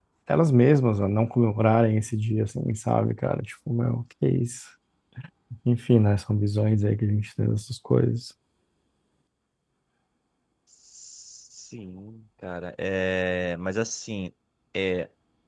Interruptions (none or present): none